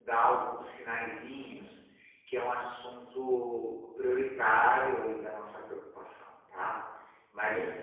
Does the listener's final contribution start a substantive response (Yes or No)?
No